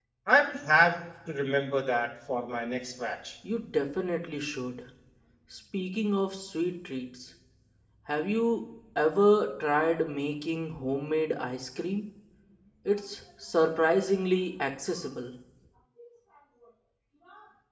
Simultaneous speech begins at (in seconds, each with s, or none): none